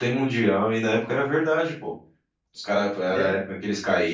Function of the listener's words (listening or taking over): listening